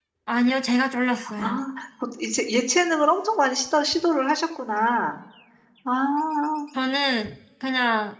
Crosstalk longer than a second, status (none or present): none